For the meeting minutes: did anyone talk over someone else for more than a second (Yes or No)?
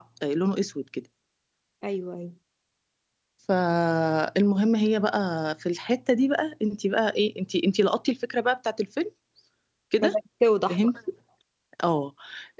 No